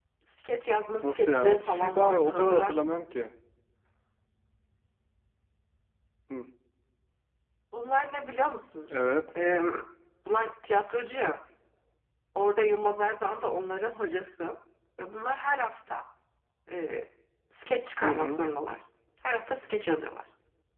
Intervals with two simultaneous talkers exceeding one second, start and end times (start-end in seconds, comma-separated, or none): 1.0-2.9